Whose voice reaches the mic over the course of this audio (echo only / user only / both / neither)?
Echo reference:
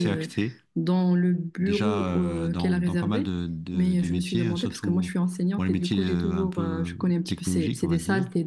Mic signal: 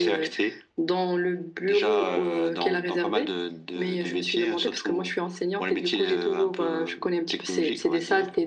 echo only